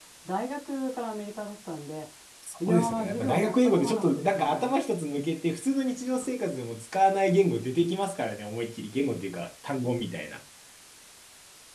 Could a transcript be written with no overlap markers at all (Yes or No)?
No